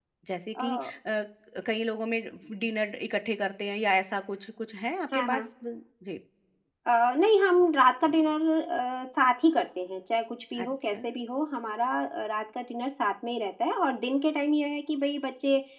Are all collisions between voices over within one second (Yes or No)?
Yes